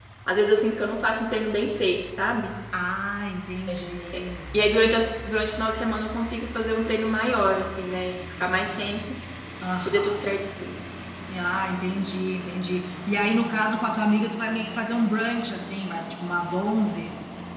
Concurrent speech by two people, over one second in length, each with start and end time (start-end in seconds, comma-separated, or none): none